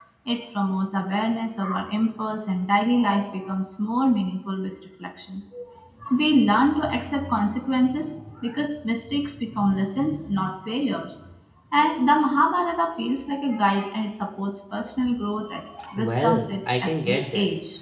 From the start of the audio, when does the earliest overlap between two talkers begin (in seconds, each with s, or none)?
16.0 s